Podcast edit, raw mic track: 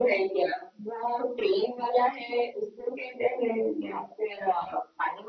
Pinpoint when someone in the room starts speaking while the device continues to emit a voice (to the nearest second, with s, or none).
none